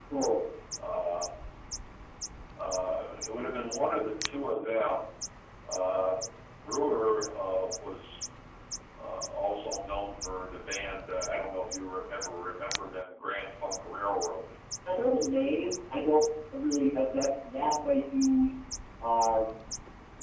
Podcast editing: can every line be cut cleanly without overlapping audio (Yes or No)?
Yes